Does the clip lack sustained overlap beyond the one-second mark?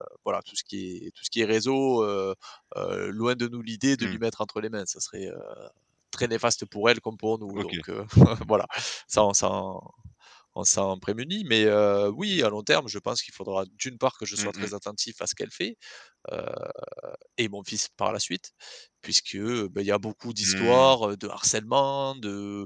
Yes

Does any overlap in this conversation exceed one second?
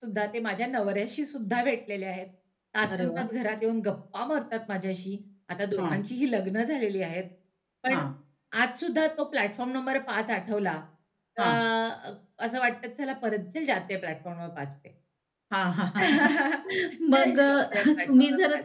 Yes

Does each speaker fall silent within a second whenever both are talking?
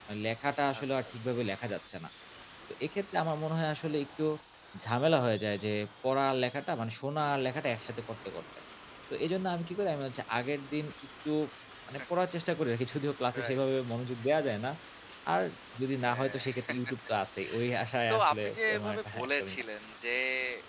No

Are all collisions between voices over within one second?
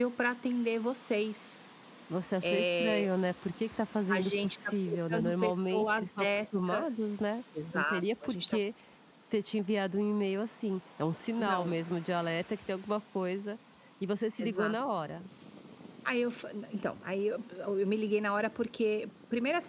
No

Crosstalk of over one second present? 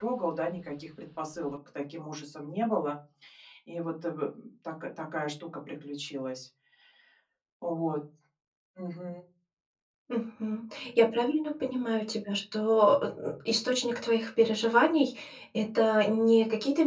No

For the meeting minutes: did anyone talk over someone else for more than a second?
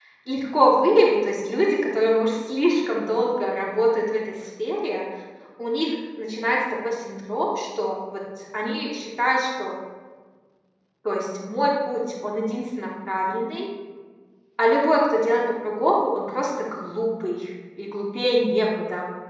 No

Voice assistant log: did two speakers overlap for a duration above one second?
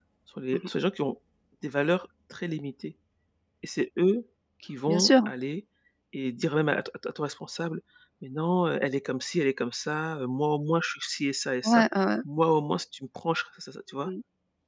No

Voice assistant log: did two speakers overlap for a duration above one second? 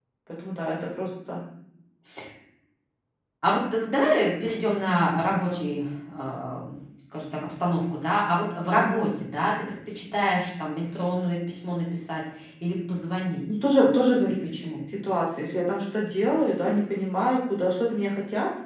No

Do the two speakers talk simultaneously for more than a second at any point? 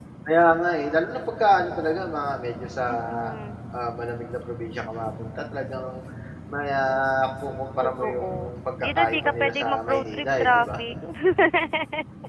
Yes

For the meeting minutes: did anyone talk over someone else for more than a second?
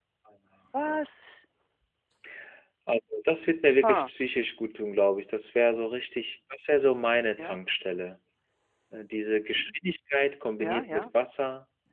No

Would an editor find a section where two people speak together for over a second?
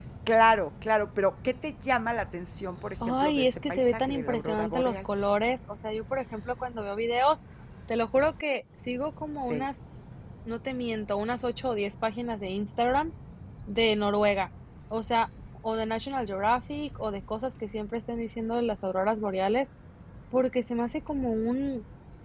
Yes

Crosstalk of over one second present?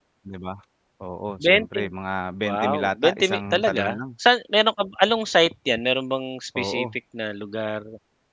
Yes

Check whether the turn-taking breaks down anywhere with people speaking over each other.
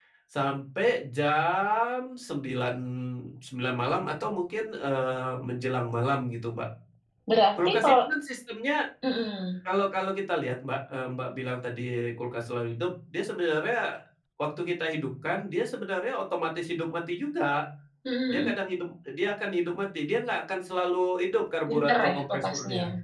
Yes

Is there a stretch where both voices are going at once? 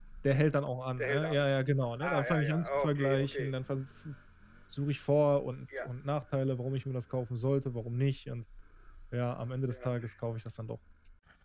Yes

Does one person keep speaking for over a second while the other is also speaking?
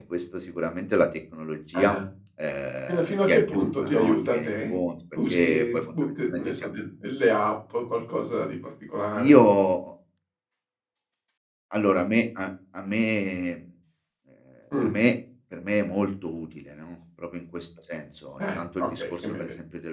Yes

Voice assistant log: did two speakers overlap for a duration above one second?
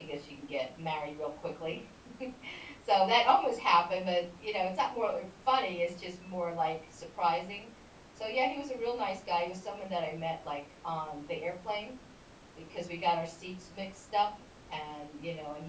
No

